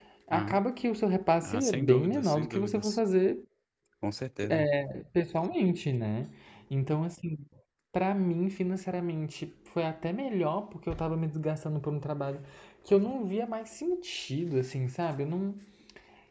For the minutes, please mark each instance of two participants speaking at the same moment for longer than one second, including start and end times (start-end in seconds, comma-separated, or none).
1.4-3.0